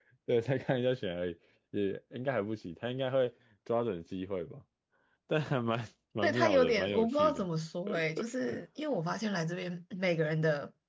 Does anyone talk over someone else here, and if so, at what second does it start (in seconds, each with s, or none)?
6.2 s